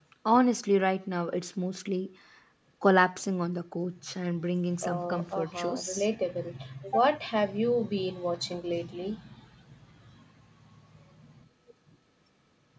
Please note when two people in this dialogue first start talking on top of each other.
4.7 s

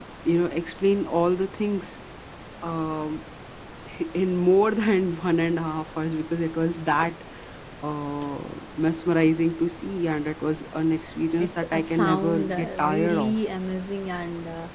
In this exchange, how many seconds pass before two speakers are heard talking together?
11.4 s

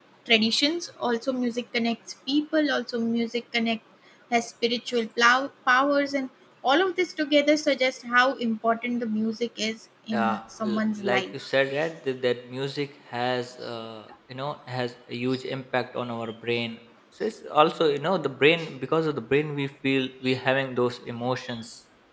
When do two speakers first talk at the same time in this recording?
10.1 s

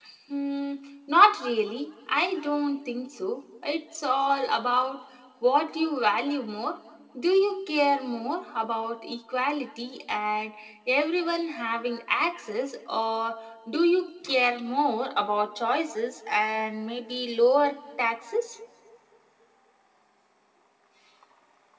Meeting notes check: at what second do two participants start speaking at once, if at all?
none

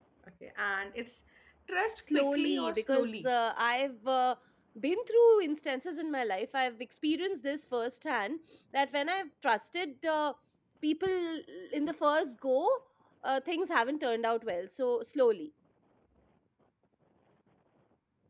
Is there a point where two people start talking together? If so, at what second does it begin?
1.9 s

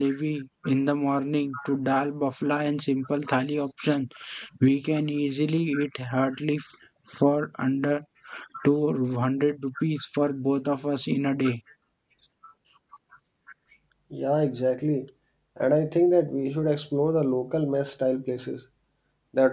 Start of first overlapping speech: none

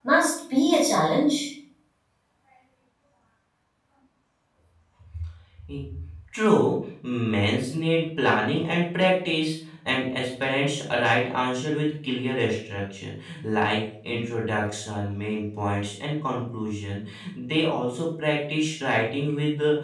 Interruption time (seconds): none

